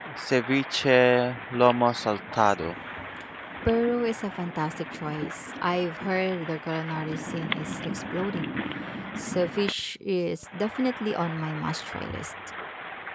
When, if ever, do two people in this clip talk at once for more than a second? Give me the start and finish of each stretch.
none

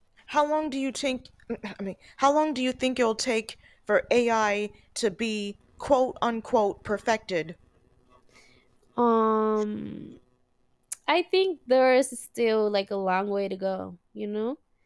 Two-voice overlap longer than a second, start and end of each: none

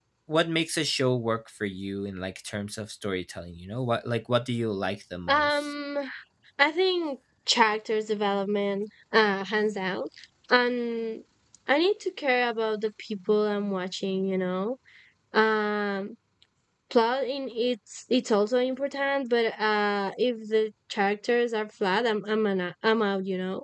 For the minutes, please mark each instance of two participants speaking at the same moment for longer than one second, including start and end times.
none

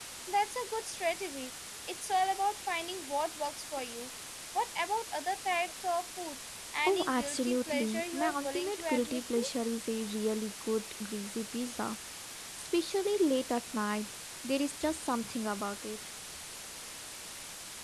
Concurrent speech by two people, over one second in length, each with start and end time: 6.8-9.5

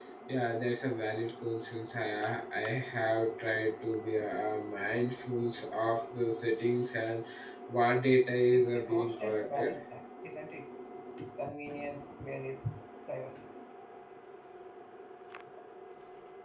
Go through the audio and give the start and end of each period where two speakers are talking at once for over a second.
8.5-9.7

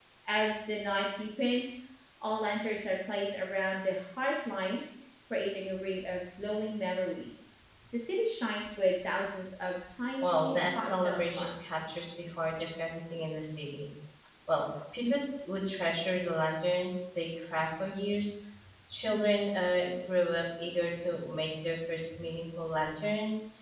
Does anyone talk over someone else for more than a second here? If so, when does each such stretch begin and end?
10.2-11.8

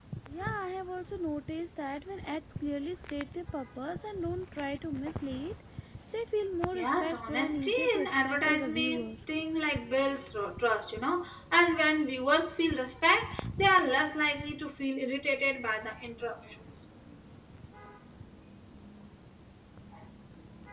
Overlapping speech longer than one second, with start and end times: 6.7-9.1

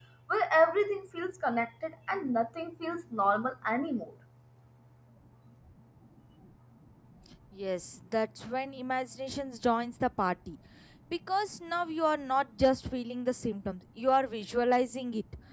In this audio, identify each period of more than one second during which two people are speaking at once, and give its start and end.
none

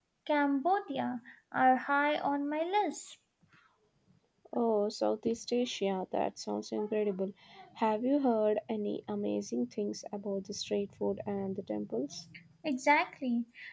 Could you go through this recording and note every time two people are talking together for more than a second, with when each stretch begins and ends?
none

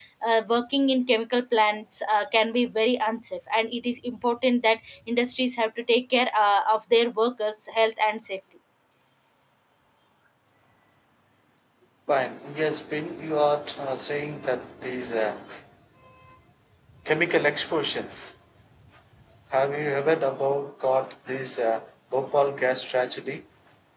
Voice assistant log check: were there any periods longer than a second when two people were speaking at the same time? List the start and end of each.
none

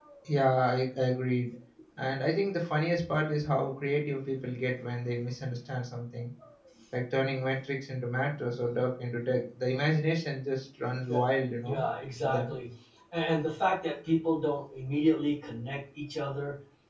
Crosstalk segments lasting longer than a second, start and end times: none

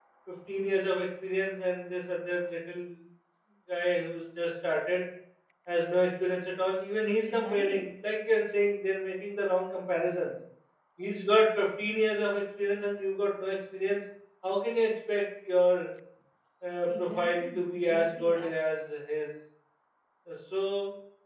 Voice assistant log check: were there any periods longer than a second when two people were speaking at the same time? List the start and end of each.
16.9-18.4

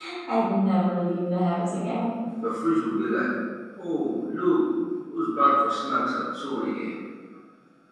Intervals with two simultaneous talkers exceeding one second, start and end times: none

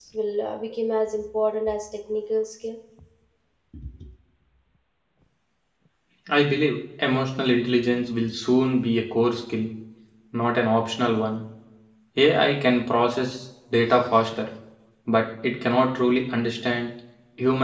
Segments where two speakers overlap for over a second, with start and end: none

